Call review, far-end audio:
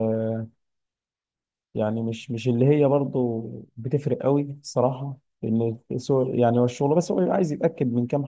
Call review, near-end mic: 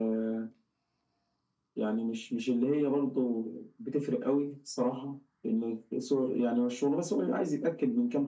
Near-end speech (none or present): none